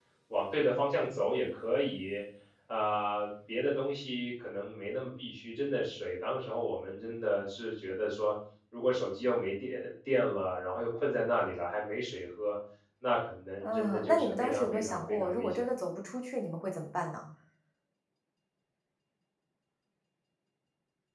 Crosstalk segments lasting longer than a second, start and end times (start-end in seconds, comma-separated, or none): 13.6-15.6